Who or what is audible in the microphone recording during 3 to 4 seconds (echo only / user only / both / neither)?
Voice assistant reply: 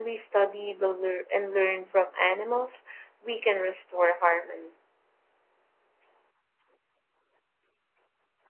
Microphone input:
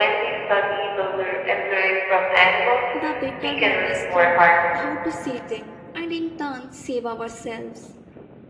both